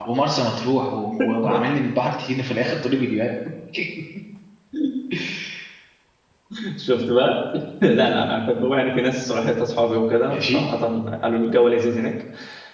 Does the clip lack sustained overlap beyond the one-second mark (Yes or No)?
Yes